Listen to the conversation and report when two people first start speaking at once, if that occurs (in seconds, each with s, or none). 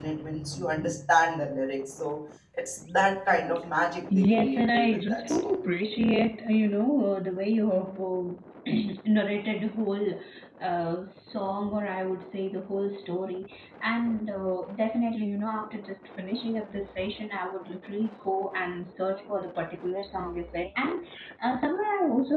4.1 s